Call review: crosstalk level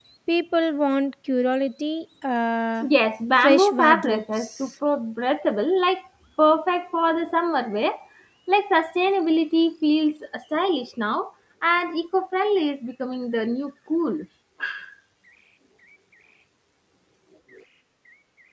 present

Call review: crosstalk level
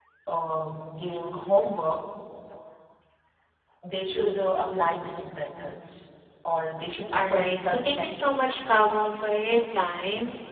present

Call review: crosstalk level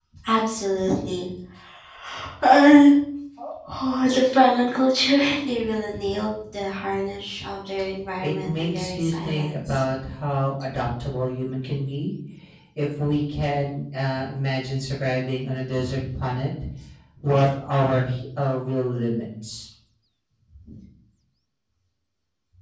present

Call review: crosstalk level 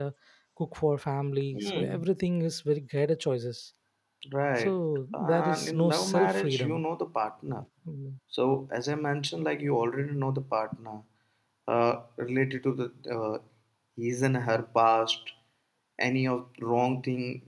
present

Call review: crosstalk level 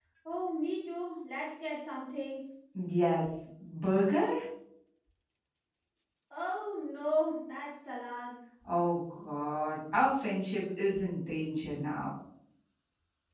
none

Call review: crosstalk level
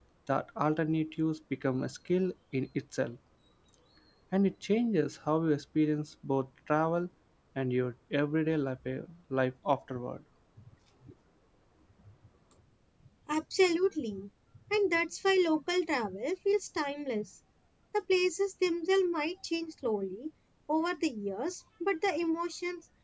none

